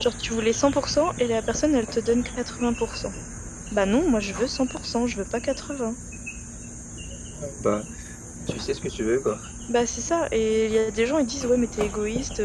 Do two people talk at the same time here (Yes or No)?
No